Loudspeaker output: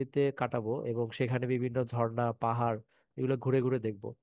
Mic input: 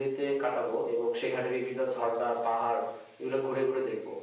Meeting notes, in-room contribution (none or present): none